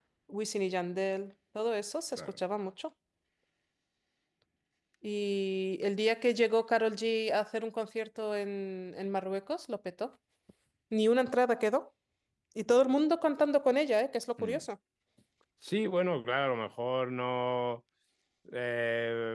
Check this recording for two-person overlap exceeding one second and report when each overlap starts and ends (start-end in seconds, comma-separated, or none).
none